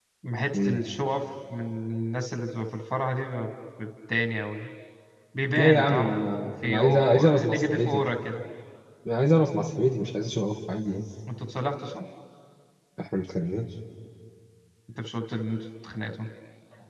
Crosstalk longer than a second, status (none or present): present